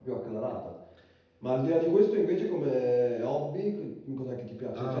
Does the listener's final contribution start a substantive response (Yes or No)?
Yes